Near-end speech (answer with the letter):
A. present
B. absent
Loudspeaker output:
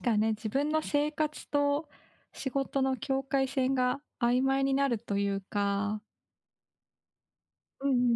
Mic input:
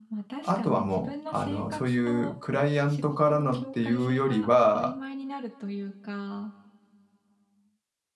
A